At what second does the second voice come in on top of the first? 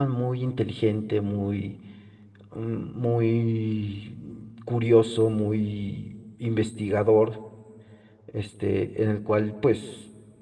none

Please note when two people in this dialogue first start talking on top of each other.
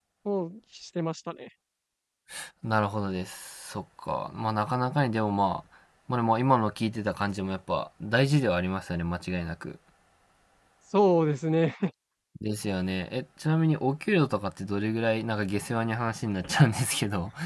none

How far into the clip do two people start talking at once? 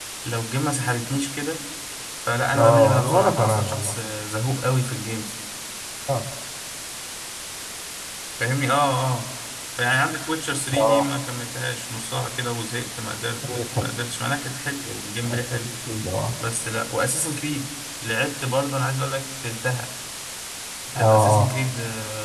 3 s

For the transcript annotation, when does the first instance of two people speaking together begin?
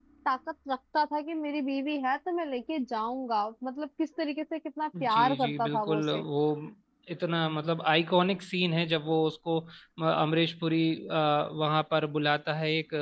5 s

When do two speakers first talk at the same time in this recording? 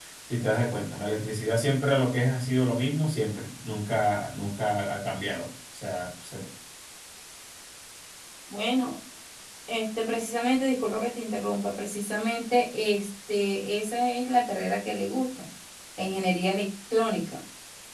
none

